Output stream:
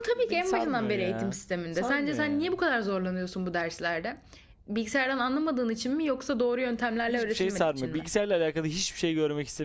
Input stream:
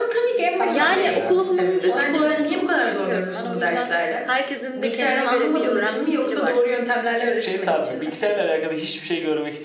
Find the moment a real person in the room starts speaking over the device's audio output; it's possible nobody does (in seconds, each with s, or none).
0.7 s